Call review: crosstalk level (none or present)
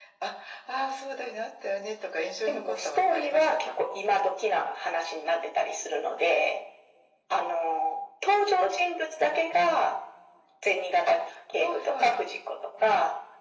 present